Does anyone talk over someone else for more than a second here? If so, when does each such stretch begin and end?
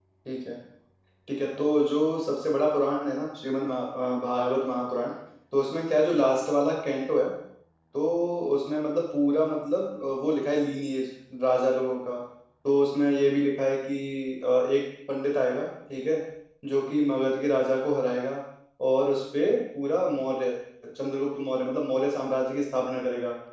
none

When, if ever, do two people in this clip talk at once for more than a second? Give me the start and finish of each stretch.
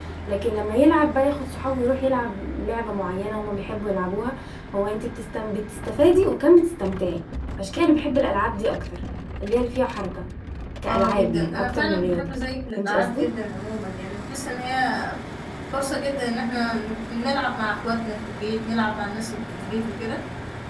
10.9-12.3

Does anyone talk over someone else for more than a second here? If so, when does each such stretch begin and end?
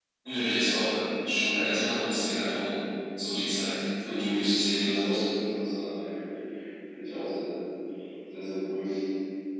none

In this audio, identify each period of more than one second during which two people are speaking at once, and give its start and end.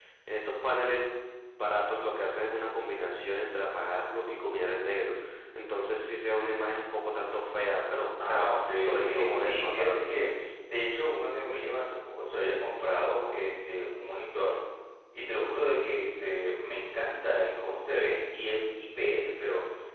8.2-9.9

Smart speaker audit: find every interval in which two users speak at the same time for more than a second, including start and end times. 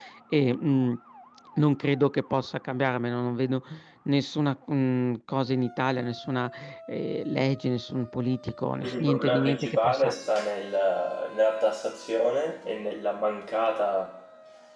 8.8-10.1

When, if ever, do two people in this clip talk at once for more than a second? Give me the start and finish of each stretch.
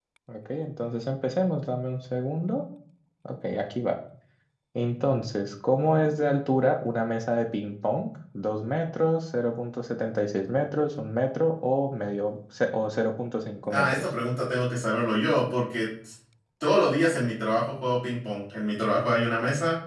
none

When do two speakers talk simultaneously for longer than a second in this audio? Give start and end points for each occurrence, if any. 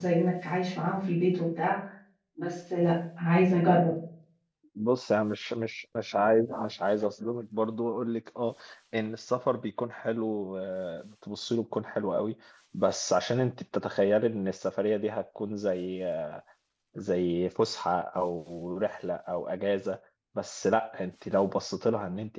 none

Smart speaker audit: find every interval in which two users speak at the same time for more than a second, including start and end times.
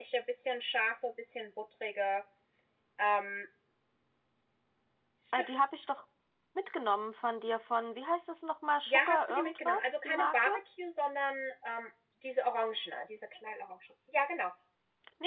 8.9-10.5

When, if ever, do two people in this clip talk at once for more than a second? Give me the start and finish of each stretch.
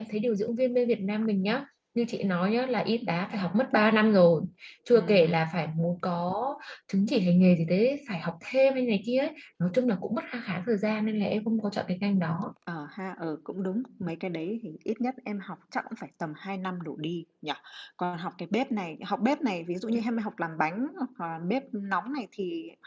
none

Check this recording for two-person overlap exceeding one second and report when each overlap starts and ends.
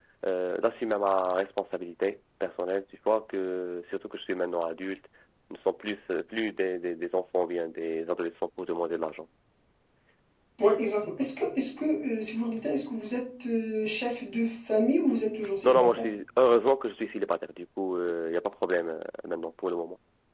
none

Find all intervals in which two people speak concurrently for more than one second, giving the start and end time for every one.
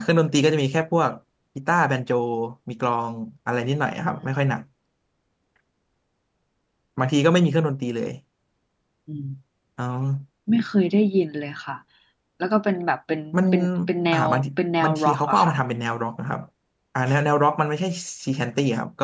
14.1-15.5

